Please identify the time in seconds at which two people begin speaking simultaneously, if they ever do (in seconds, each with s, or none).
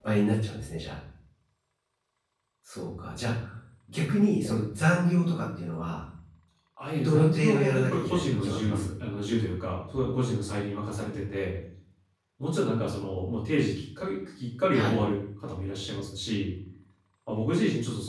7.0 s